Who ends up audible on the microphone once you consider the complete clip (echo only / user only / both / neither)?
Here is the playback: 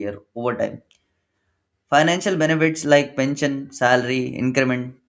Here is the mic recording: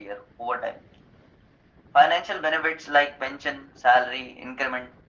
echo only